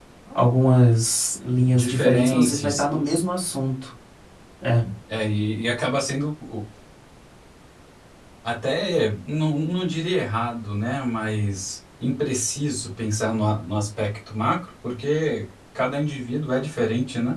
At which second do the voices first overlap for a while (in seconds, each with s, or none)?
1.7 s